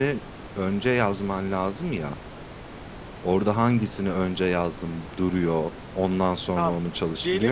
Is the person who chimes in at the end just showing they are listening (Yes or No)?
No